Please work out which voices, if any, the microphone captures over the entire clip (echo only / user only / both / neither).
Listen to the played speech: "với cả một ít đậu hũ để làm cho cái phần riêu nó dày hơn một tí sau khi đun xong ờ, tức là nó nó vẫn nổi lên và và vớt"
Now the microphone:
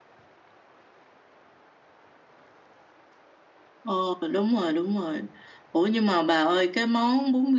user only